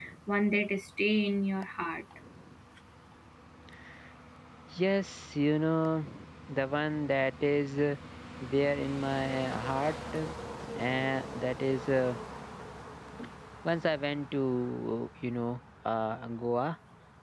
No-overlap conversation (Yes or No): Yes